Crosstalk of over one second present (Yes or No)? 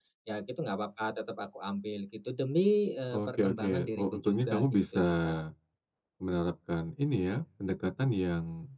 Yes